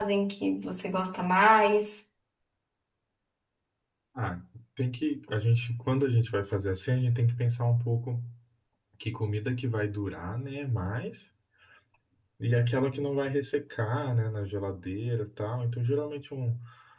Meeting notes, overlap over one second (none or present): none